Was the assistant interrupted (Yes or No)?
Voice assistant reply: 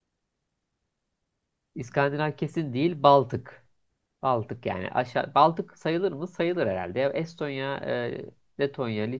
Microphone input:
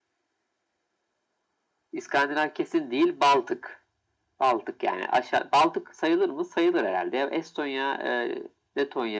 No